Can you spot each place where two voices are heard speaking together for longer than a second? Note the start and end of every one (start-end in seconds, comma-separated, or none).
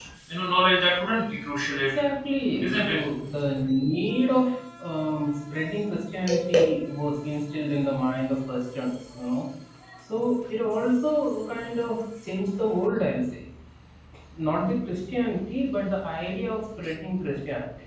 none